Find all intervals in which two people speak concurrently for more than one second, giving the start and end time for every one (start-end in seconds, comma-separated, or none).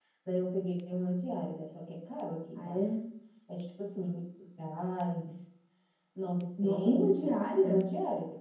6.6-7.8